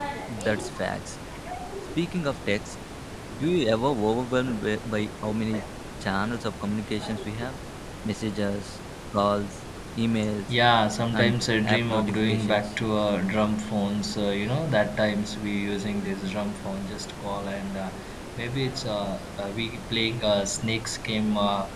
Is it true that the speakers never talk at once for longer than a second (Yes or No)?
No